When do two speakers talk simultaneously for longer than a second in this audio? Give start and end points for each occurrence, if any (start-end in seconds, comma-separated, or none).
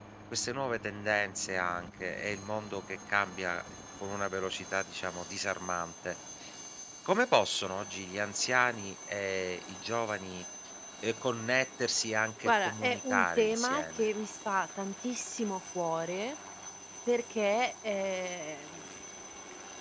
12.4-14.1